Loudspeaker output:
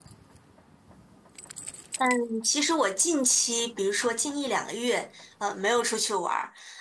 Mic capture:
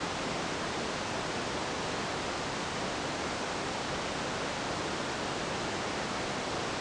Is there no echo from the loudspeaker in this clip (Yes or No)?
Yes